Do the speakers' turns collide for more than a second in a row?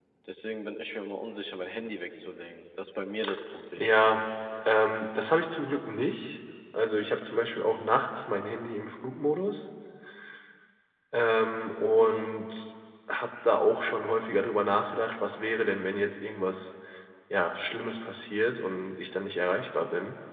No

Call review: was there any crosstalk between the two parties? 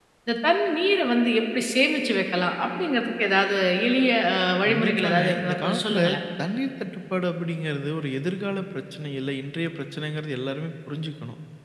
Yes, from 4.7 s

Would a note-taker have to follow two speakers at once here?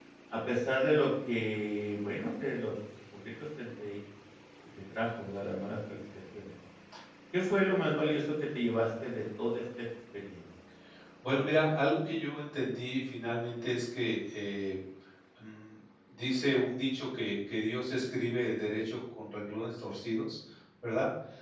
No

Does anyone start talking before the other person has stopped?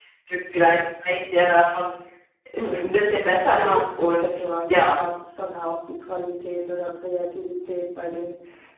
Yes, from 2.6 s

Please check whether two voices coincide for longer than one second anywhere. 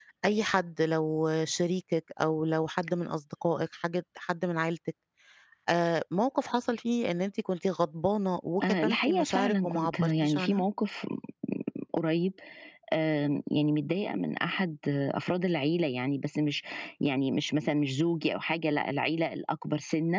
Yes, from 8.6 s

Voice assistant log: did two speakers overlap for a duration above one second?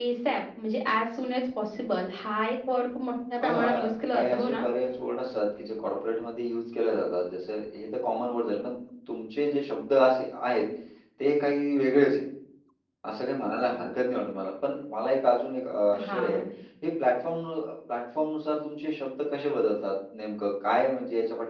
Yes, from 3.4 s

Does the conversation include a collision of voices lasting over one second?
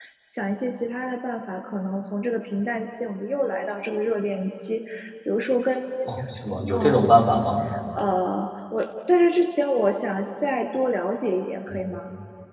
No

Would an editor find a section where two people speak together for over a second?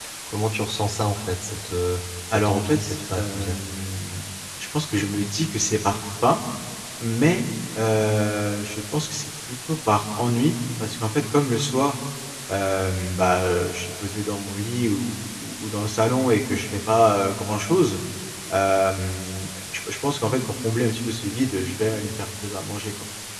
Yes, from 2.3 s

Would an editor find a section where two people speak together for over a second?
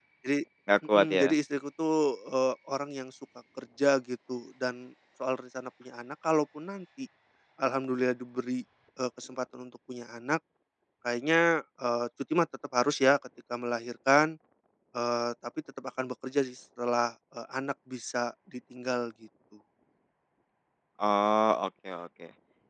No

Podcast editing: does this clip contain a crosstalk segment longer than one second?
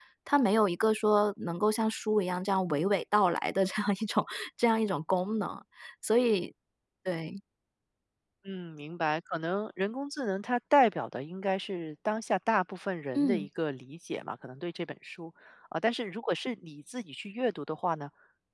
No

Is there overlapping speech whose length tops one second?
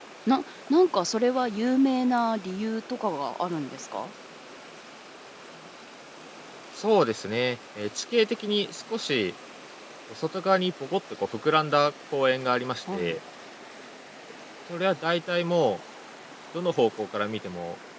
No

